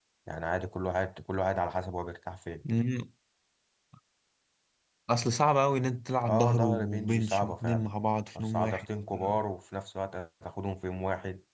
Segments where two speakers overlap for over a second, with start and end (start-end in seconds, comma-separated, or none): 6.3-7.8